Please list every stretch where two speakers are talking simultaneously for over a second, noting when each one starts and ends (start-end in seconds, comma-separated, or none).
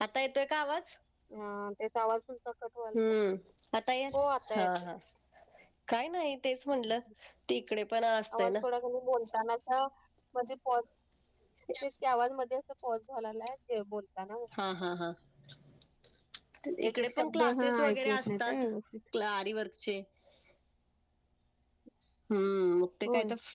16.9-18.6